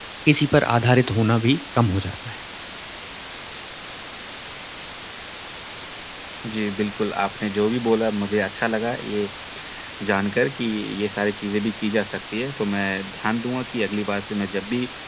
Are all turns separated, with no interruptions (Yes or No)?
Yes